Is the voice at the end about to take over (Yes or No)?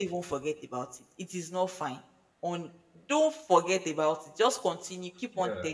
No